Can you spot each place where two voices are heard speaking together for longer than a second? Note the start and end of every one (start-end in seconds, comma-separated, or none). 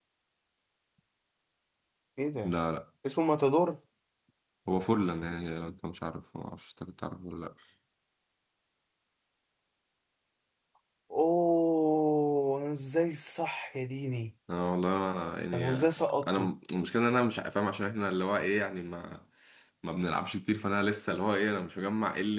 none